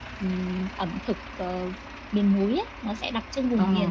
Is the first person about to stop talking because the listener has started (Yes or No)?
No